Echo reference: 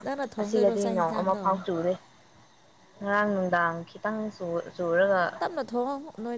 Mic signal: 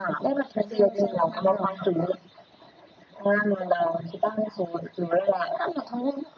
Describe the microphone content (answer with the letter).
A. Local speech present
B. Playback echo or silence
B